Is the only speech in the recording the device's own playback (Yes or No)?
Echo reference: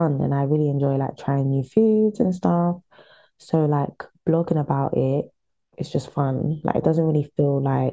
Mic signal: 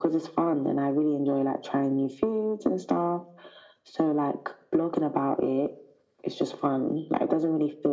Yes